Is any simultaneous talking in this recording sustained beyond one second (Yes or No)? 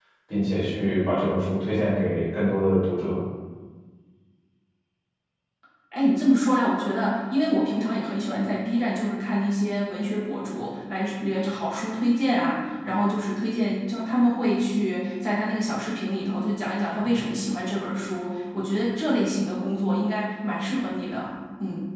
No